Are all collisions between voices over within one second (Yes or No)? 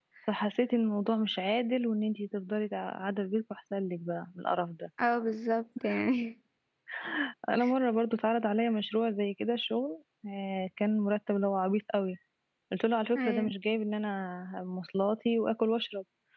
Yes